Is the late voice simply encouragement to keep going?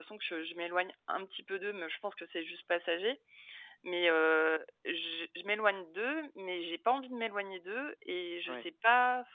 Yes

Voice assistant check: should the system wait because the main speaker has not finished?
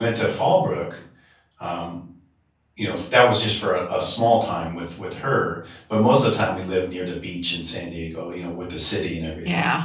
No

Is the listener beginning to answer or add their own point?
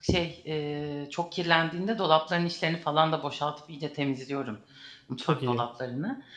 No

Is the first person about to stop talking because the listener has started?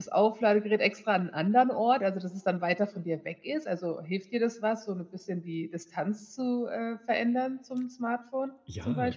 Yes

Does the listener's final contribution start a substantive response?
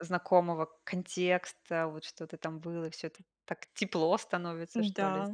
Yes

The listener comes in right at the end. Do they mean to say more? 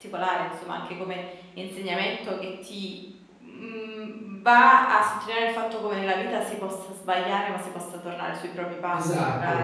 Yes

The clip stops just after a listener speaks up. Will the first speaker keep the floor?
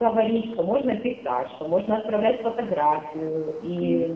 No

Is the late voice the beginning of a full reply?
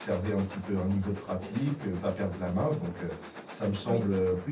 No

